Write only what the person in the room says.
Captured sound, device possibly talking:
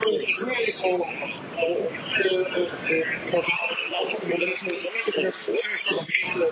none

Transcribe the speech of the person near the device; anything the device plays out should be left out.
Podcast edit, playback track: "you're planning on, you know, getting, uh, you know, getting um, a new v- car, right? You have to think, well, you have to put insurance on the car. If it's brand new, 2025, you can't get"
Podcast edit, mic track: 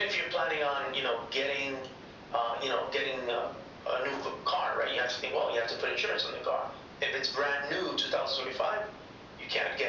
none

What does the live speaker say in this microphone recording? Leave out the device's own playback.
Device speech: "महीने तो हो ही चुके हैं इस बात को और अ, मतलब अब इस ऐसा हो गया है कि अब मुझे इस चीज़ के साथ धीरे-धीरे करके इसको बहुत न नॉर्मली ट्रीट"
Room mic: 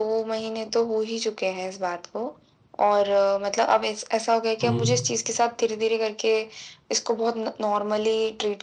हुँ, हुँ।

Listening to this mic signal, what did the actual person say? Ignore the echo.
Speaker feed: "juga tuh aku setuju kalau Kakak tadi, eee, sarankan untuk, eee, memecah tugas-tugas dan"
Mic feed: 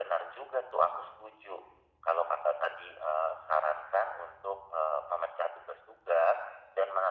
none

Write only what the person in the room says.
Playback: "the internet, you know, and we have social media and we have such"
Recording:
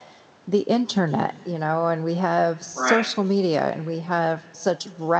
Right.

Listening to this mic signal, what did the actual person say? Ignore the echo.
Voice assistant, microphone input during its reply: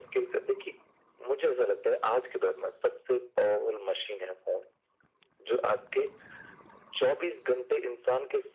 none

